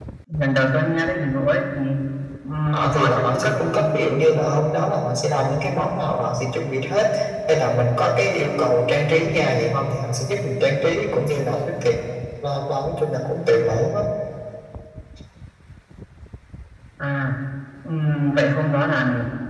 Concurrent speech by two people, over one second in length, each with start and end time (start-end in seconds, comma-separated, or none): 2.7-3.9